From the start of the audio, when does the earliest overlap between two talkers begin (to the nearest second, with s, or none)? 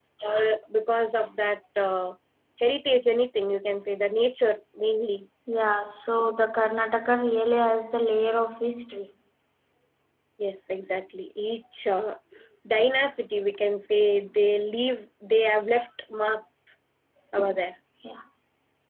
none